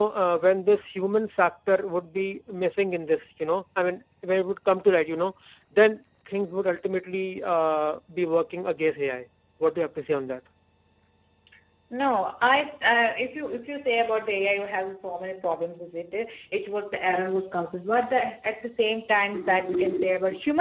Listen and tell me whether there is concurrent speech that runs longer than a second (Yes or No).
No